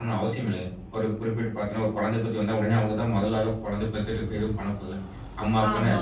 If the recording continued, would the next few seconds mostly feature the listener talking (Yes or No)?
Yes